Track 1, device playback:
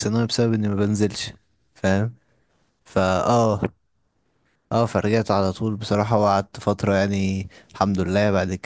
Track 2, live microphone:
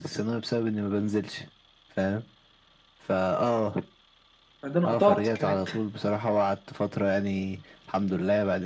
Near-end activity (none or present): present